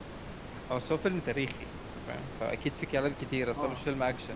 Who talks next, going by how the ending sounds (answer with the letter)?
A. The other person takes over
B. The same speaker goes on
A